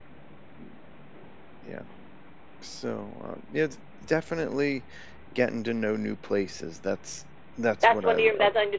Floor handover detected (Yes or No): Yes